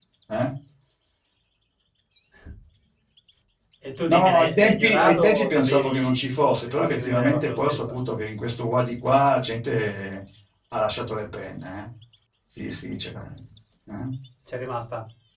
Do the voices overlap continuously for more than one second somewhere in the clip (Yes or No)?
Yes